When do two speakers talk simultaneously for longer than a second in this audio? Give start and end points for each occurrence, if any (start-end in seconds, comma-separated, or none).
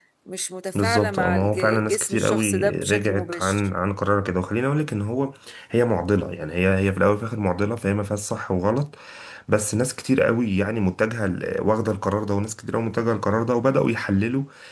0.8-3.7